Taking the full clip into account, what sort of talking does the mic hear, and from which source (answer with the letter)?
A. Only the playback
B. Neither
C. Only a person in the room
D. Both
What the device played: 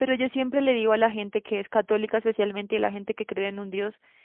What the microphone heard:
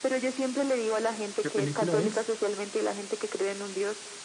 D